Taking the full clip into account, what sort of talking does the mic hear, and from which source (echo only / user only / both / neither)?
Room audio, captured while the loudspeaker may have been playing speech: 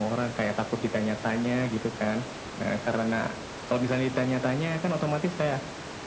echo only